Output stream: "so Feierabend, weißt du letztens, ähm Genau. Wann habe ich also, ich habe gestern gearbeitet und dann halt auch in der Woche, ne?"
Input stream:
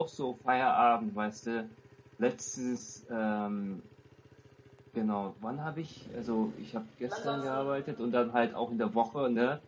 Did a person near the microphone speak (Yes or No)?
Yes